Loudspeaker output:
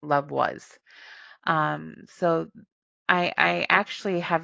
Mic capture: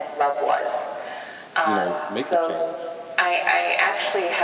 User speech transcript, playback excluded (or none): you know, make a change,